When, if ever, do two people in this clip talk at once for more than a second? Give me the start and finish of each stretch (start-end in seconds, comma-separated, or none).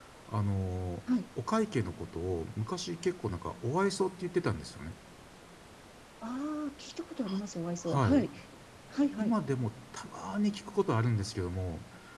none